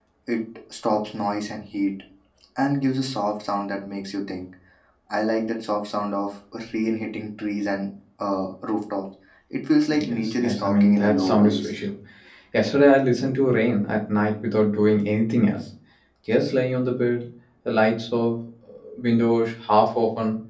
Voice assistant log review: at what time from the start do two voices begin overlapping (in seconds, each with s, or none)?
9.9 s